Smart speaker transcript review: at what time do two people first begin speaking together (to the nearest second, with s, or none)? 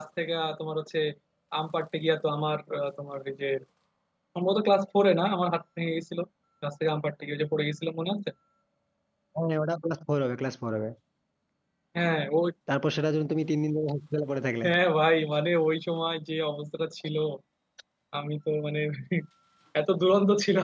none